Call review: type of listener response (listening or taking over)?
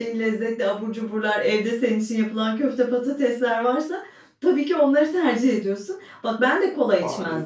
listening